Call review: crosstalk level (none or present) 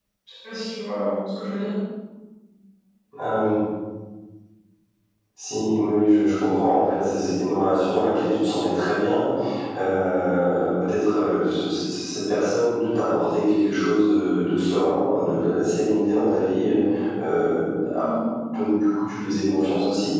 none